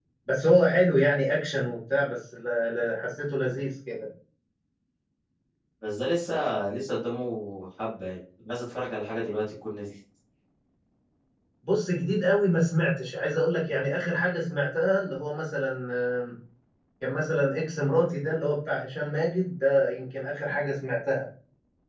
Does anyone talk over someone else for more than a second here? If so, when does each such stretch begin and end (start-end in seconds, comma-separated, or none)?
none